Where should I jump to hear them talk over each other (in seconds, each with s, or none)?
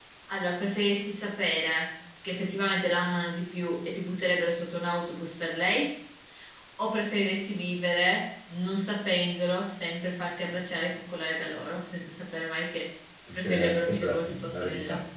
13.4 s